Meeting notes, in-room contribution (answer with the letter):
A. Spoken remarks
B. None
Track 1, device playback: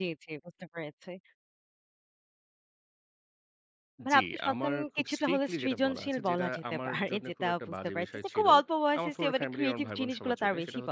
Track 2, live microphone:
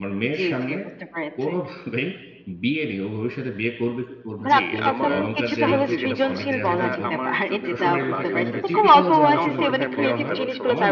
A